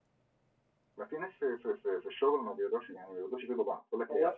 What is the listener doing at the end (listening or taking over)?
taking over